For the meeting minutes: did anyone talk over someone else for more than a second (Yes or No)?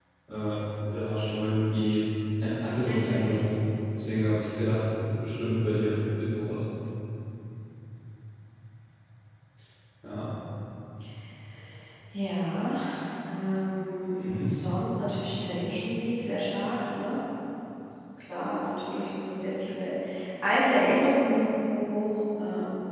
No